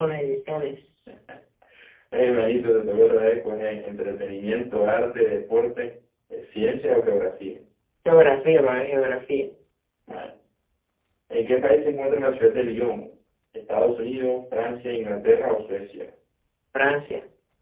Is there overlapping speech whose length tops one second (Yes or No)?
No